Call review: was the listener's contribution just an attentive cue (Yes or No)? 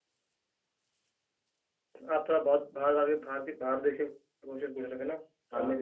Yes